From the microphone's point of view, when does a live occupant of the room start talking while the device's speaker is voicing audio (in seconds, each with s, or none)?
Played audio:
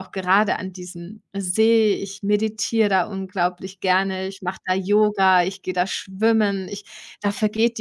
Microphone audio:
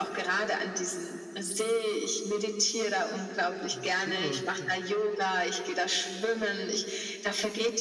3.7 s